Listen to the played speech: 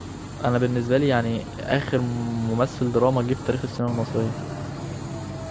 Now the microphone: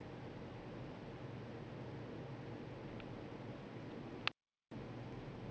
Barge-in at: none

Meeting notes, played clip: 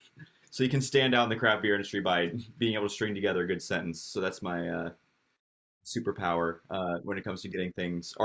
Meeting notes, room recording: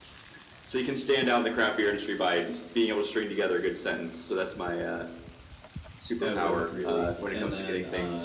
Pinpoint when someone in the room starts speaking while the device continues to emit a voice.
6 s

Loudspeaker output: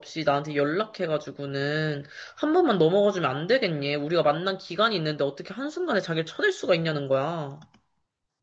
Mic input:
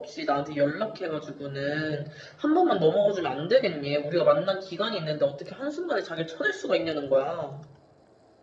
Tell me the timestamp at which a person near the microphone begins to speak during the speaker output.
none

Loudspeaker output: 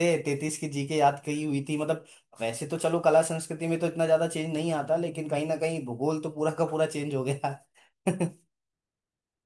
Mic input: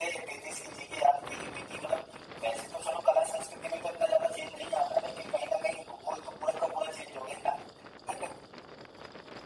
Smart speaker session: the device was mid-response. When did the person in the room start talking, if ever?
none

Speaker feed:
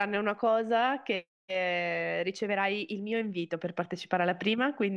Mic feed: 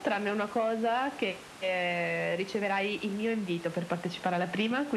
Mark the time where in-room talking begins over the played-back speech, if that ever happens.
none

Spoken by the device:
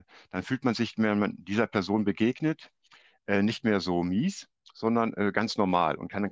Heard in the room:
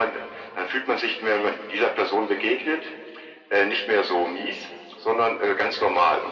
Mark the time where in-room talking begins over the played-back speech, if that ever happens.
none

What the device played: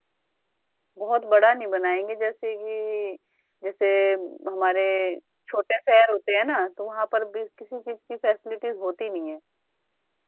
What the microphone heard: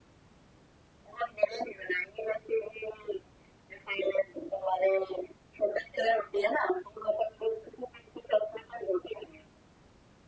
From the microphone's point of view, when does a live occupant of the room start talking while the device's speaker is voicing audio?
none

